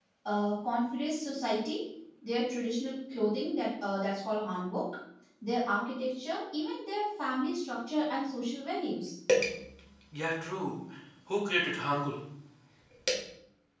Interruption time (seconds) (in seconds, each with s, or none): none